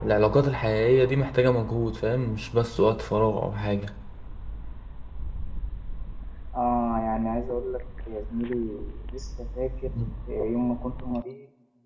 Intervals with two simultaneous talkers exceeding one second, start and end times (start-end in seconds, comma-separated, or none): none